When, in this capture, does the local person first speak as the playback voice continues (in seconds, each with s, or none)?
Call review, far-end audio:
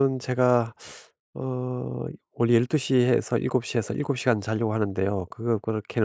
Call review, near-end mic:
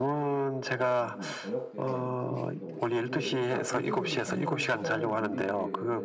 0.6 s